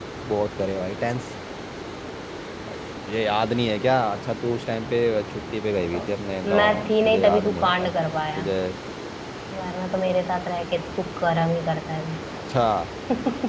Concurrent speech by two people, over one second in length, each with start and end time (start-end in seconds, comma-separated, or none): 6.4-7.9